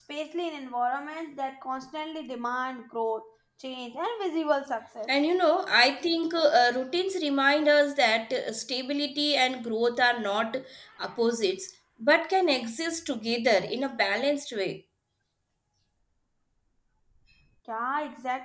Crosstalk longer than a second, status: none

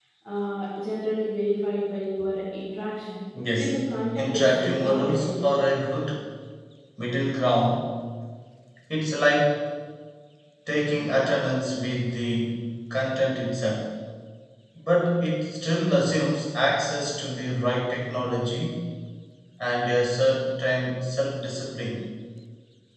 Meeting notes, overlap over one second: present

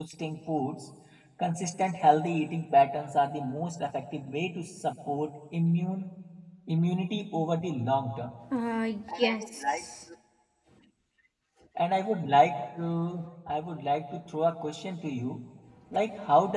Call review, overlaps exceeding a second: none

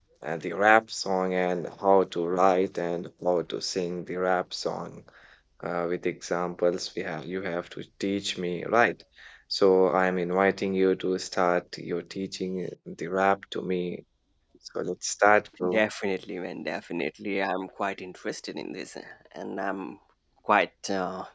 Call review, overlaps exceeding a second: none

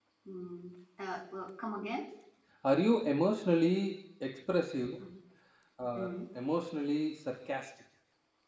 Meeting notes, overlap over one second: none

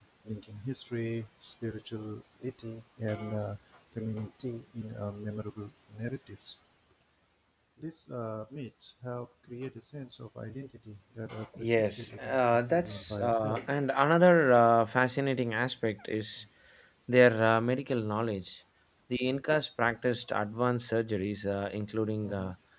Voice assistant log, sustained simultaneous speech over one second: present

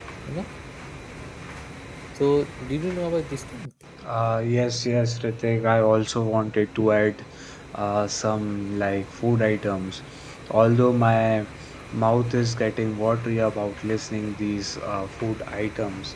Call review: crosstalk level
none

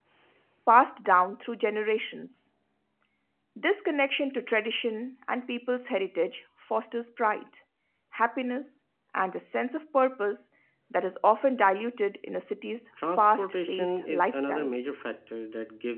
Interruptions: present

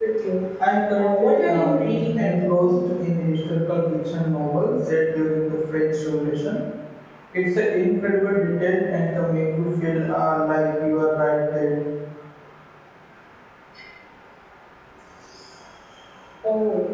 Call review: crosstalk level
present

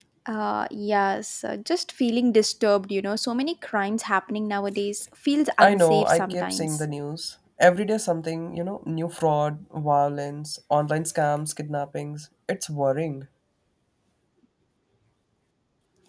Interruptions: present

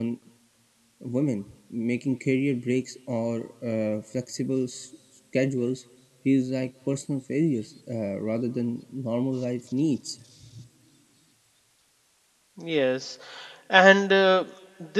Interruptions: none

